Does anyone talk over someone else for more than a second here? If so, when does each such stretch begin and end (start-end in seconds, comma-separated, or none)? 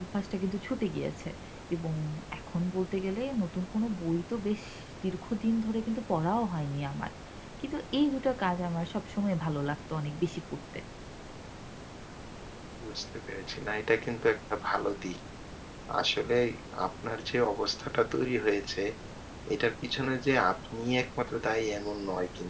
none